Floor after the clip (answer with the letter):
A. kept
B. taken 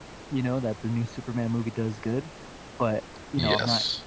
A